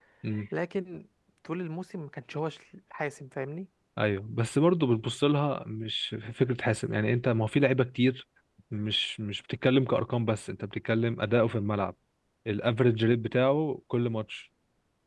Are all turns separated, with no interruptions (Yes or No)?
Yes